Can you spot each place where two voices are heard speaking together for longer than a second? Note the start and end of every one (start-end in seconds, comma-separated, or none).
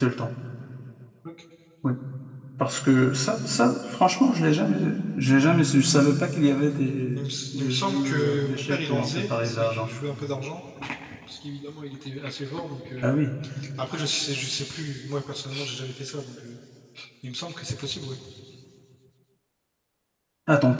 7.1-9.9